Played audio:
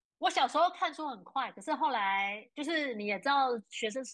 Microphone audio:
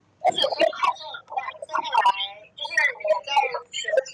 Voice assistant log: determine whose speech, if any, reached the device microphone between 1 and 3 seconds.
echo only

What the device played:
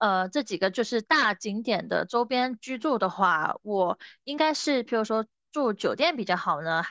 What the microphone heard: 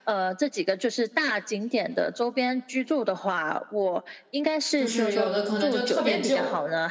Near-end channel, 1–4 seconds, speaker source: echo only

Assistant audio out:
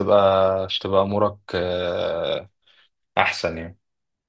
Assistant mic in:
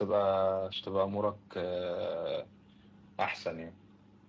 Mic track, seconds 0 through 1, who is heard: echo only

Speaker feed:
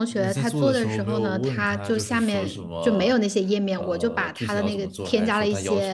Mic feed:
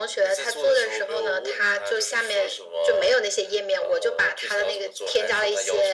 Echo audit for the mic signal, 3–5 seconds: echo only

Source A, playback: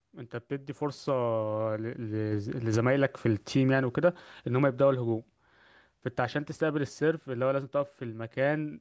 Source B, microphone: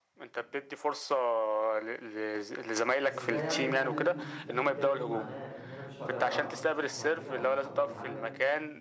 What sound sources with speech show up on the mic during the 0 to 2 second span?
echo only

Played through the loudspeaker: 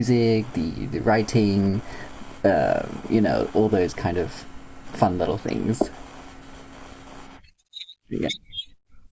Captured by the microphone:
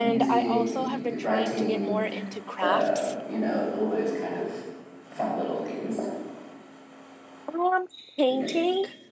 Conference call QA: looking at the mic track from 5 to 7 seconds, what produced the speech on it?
echo only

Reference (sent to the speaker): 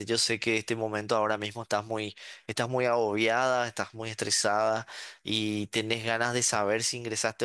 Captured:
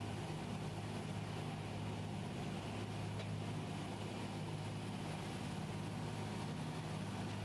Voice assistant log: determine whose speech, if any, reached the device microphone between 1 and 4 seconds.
neither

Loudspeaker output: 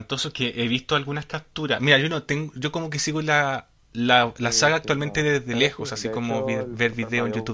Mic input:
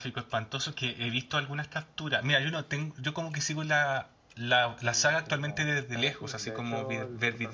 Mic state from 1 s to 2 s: echo only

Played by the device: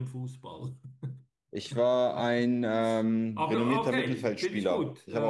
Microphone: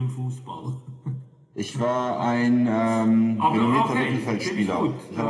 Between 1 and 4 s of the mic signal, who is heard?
echo only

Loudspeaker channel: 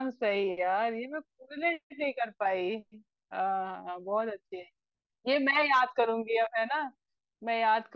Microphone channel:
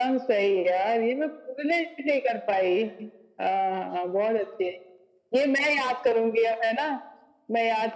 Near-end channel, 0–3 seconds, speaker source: echo only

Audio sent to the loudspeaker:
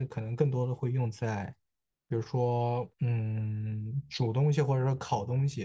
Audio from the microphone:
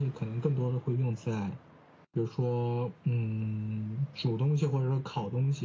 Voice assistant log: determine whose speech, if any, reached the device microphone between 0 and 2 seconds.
echo only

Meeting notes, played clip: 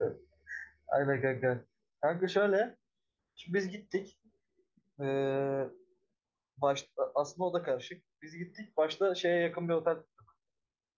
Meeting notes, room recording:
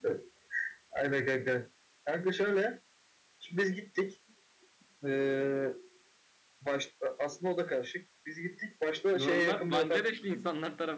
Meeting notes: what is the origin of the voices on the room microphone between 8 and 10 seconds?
both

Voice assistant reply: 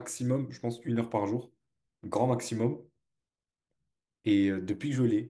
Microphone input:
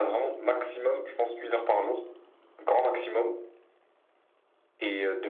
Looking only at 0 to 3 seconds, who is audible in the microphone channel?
echo only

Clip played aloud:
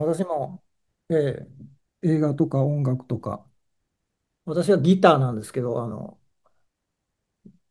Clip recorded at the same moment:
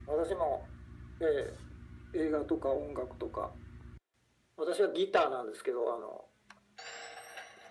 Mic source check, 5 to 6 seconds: echo only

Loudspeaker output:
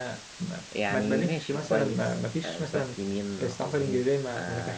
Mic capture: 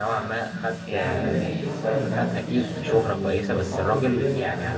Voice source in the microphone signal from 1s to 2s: both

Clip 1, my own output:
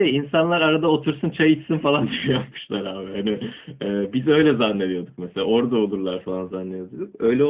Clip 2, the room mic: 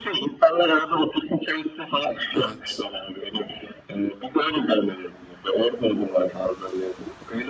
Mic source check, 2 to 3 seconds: both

